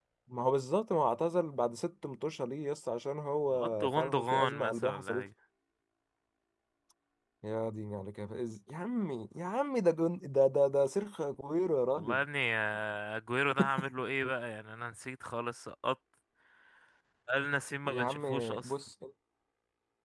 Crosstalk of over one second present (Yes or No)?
Yes